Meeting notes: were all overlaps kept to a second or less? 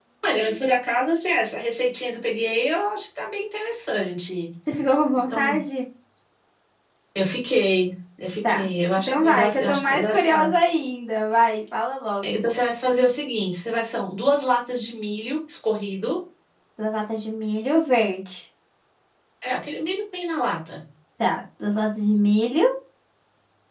No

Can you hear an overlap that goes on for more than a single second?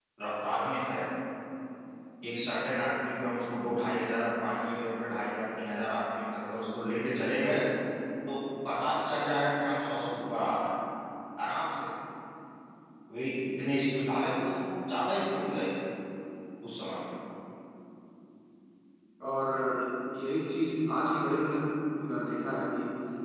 No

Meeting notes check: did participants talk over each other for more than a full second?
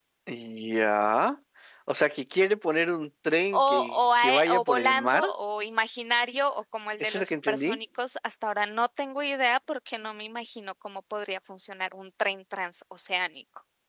Yes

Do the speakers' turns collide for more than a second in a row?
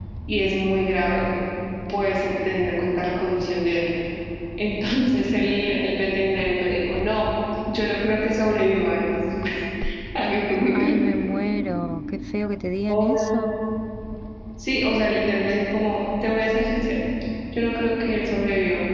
No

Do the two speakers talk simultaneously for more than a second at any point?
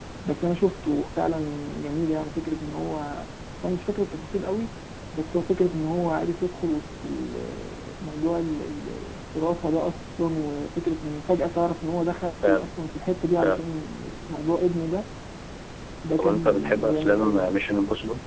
Yes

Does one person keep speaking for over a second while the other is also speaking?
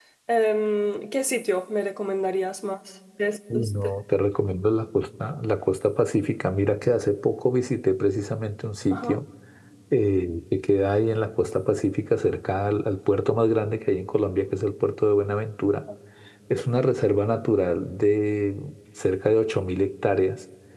No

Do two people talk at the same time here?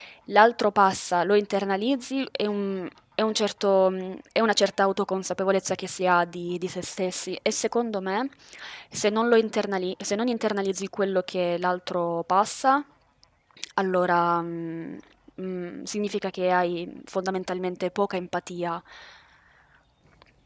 No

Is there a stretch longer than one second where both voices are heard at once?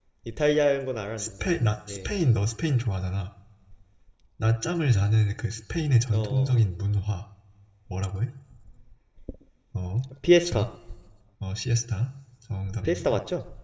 No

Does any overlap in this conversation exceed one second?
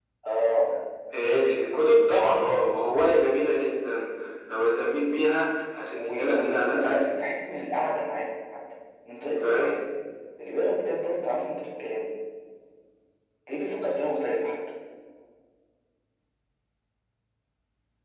Yes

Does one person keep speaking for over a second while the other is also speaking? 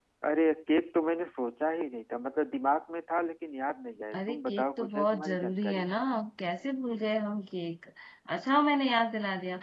Yes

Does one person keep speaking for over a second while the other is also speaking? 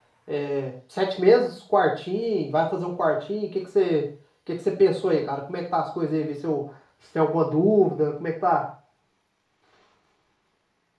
No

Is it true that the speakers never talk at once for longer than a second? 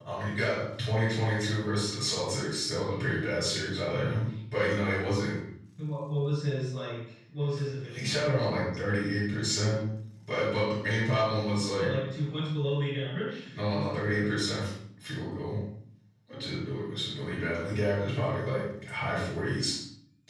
Yes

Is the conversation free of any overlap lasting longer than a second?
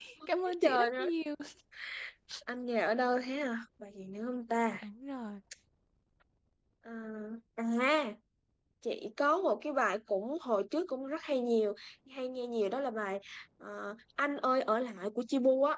Yes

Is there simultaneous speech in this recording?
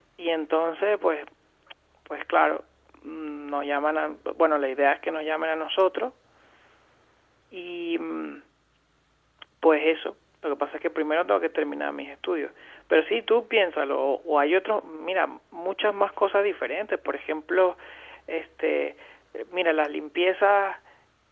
No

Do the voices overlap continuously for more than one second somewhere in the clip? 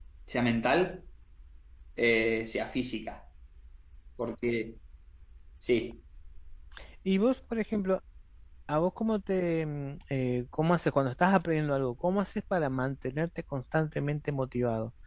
No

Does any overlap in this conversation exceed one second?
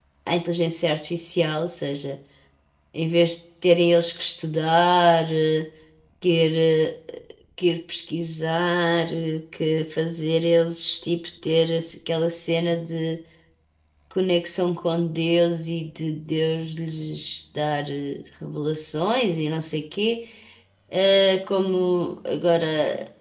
No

